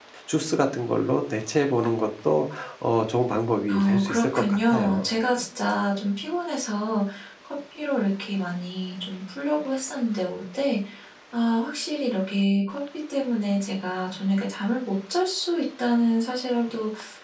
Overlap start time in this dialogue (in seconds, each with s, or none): 3.7 s